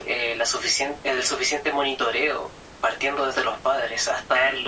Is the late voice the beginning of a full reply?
No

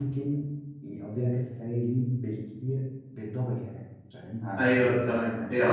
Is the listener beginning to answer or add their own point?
Yes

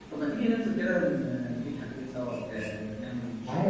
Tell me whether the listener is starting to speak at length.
Yes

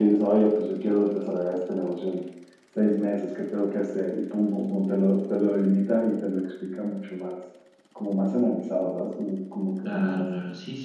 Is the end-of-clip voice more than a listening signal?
Yes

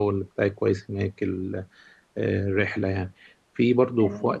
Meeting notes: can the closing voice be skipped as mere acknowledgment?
Yes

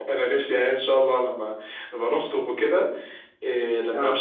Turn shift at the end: No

